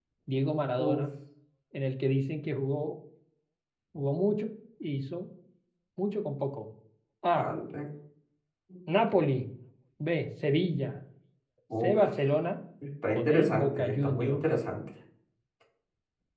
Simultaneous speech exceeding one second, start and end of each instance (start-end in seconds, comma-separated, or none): 13.2-14.4